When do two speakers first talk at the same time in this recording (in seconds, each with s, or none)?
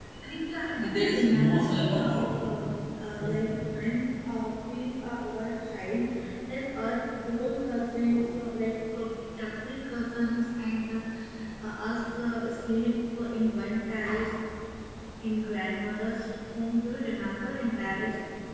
0.8 s